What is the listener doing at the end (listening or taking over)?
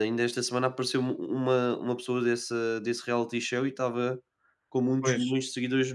listening